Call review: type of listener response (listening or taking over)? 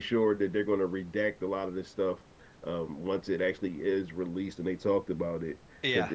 listening